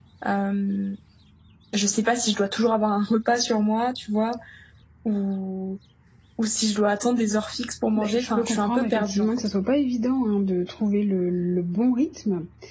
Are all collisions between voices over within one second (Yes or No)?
No